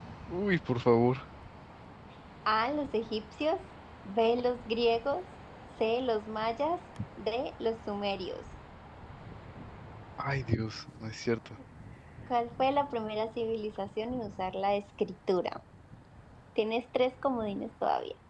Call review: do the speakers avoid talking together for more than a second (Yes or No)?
Yes